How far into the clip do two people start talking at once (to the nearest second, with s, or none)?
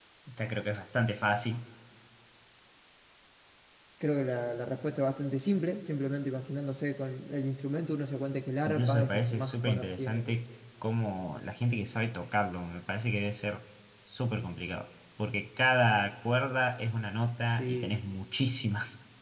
9 s